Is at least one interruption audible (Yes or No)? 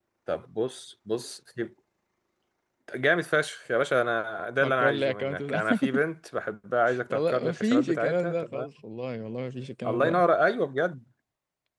Yes